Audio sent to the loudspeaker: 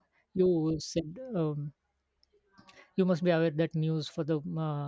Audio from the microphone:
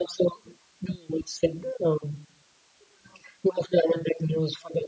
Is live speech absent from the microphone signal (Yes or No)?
Yes